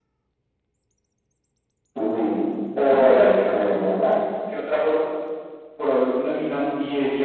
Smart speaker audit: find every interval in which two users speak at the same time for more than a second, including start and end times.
2.9-4.1

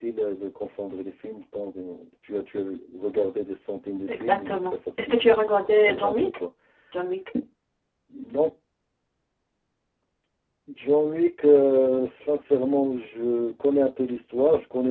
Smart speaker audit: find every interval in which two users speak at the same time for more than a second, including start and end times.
4.1-6.3

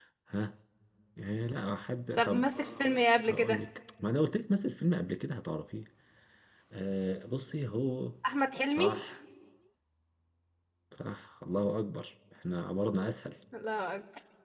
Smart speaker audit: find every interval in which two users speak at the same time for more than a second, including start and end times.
2.2-3.6

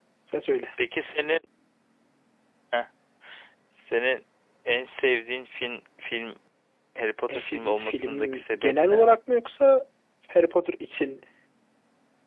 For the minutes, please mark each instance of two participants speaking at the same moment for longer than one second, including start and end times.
7.3-9.1

